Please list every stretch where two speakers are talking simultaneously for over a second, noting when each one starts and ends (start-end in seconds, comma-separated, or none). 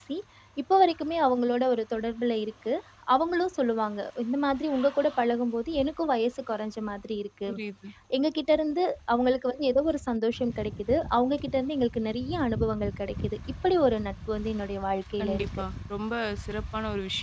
none